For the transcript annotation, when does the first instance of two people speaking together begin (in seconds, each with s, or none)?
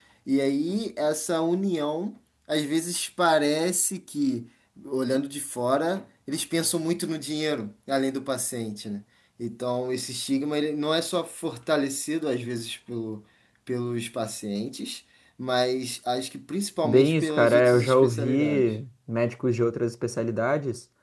16.8 s